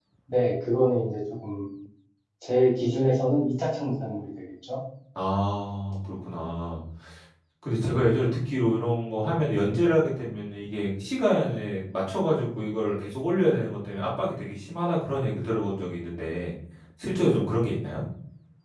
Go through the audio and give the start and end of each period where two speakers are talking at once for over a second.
none

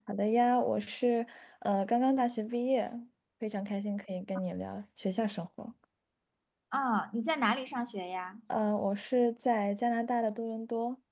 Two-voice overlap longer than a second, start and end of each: none

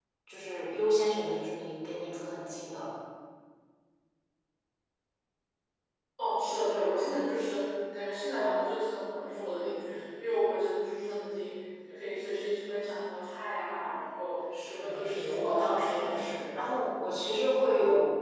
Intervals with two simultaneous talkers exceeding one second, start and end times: 14.7-16.5

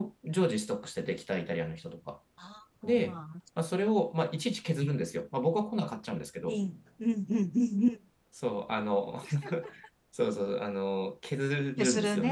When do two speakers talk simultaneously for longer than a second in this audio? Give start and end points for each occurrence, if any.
none

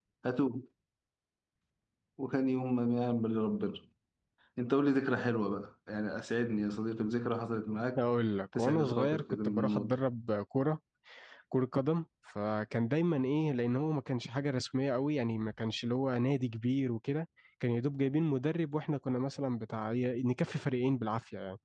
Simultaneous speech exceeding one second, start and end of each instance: 8.6-9.9

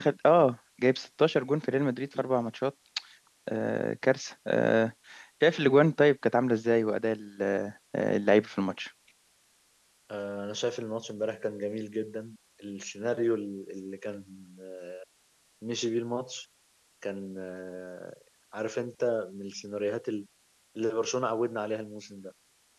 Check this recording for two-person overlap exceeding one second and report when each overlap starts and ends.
none

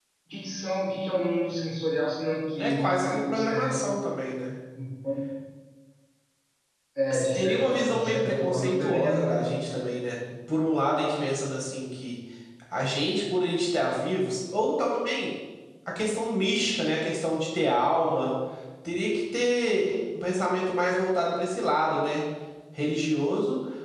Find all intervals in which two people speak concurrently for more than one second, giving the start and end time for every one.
2.6-3.9, 7.1-9.4

